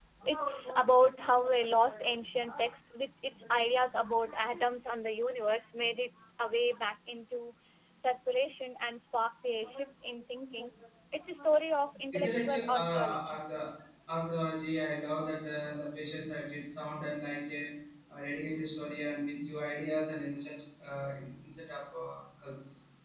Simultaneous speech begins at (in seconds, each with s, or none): 12.1 s